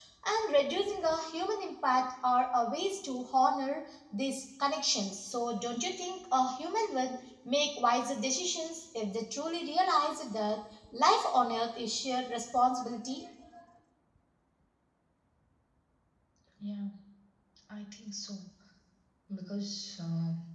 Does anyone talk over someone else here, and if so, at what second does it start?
none

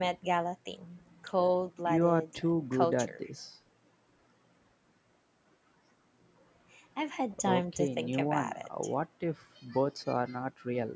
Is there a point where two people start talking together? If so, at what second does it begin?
1.8 s

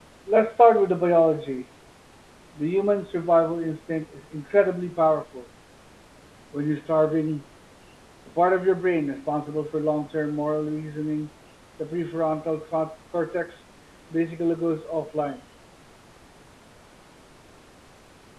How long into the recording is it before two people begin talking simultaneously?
none

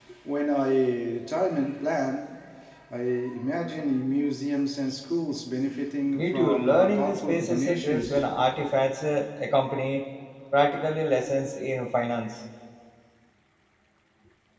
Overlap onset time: 6.2 s

